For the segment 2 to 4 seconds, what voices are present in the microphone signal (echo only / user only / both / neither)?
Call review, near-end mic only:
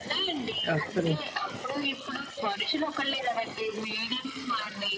echo only